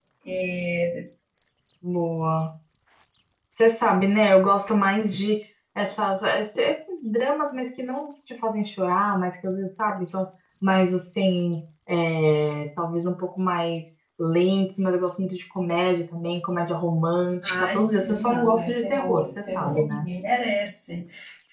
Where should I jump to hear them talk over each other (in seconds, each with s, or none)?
17.4 s